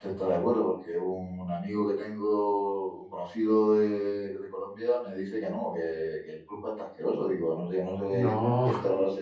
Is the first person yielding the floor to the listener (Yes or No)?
No